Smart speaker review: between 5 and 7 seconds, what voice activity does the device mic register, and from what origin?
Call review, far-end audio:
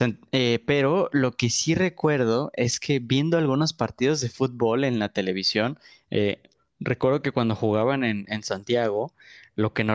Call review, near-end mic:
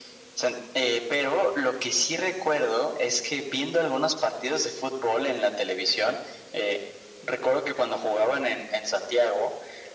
echo only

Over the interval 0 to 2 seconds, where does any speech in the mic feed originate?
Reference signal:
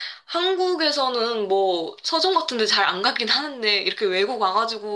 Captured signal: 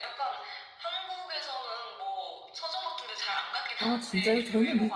echo only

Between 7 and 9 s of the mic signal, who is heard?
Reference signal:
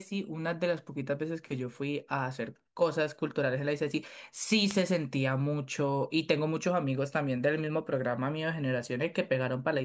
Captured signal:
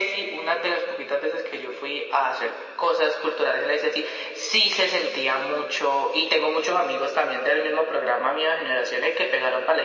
echo only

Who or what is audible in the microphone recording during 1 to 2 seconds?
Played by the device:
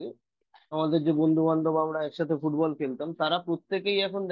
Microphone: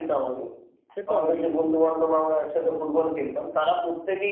both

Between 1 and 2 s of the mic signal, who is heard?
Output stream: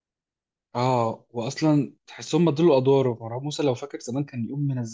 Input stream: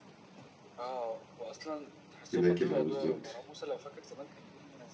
echo only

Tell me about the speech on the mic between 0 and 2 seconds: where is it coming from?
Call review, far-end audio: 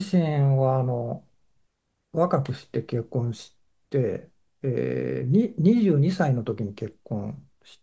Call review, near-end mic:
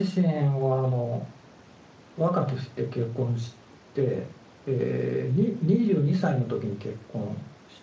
echo only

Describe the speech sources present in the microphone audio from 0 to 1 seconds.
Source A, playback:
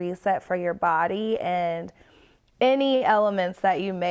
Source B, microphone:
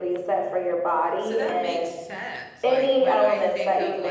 echo only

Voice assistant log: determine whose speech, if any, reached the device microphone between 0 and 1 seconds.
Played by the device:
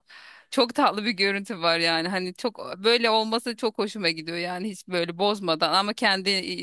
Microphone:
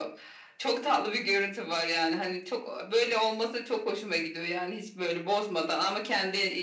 echo only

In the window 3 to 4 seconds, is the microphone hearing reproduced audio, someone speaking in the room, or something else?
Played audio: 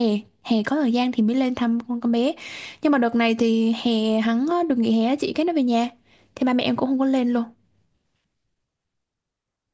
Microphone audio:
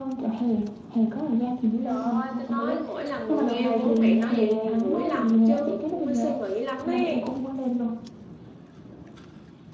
both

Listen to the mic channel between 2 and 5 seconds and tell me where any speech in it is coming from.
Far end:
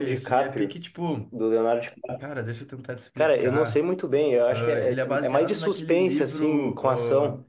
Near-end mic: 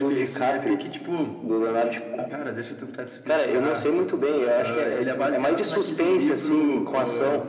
echo only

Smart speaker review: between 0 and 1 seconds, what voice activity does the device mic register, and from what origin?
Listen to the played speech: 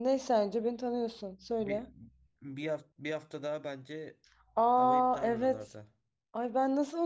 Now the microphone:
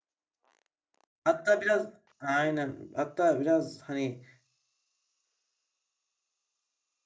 neither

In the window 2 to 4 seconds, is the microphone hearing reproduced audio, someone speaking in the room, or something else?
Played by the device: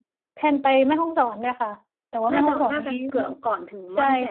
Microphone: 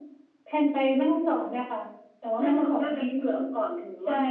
echo only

